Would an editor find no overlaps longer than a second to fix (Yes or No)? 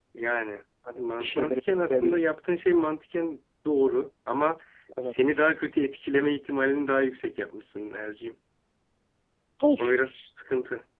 No